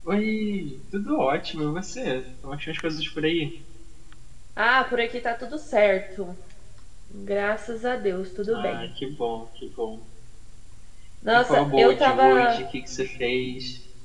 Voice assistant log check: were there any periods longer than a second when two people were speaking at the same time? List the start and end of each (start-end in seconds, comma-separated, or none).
11.3-12.6